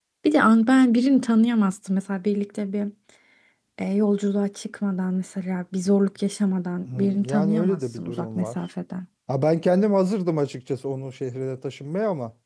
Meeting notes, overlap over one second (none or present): present